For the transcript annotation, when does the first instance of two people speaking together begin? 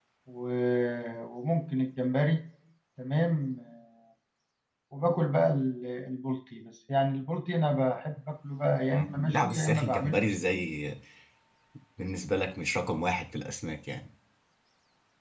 8.9 s

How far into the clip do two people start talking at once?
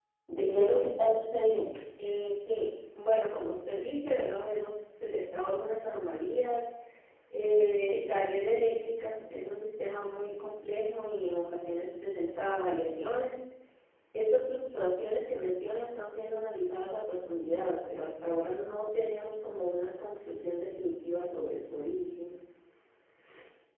none

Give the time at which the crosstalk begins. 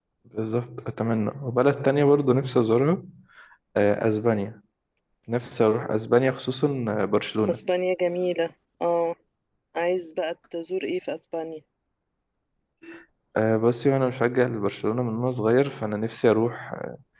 none

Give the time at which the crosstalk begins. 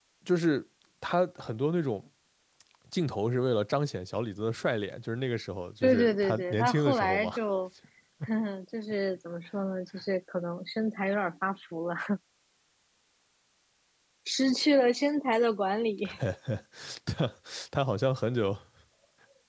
5.8 s

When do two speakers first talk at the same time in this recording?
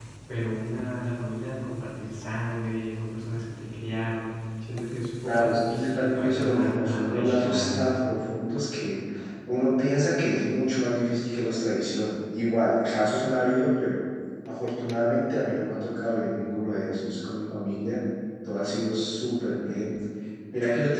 5.2 s

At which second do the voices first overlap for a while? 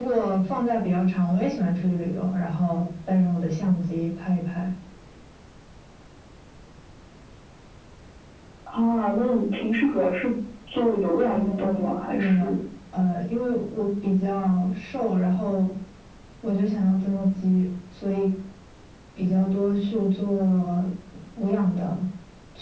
11.2 s

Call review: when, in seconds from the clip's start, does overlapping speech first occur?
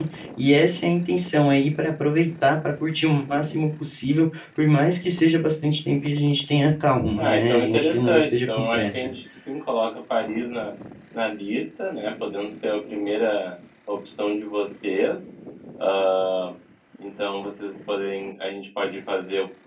7.1 s

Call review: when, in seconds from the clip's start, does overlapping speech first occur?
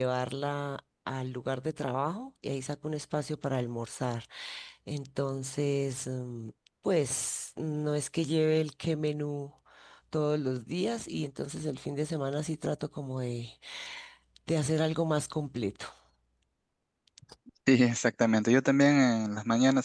none

